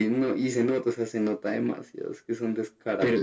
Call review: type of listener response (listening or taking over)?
taking over